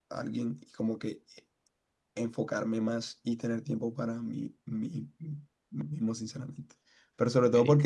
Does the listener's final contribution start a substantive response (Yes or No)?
No